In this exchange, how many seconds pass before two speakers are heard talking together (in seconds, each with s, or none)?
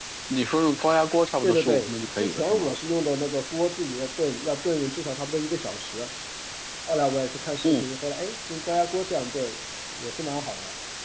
1.4 s